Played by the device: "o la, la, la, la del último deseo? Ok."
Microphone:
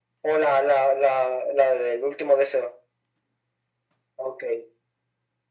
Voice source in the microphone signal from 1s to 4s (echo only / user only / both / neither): echo only